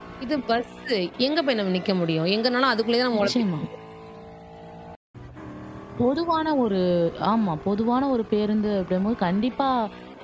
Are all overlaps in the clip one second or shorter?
Yes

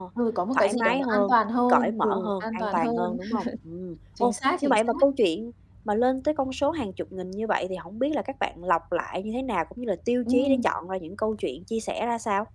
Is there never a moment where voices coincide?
No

